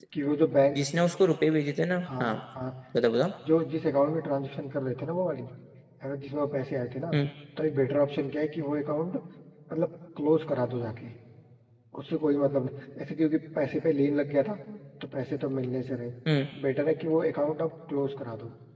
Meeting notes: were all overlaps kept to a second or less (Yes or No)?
Yes